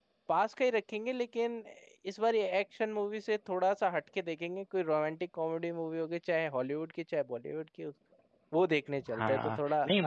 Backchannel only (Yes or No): No